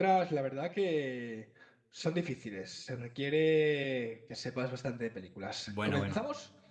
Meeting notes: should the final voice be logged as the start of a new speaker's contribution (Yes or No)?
Yes